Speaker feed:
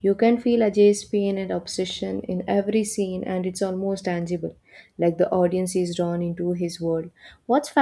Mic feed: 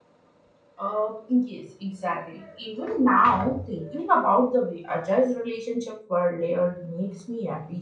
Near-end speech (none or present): present